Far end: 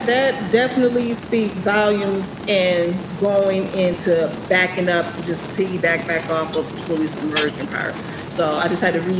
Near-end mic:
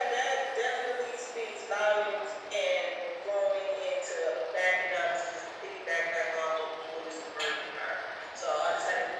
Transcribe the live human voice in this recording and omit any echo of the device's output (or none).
none